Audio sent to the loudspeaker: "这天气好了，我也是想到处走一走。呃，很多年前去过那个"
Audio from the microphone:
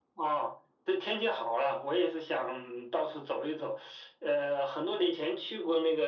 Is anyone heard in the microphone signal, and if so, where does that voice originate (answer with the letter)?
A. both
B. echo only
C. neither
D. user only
B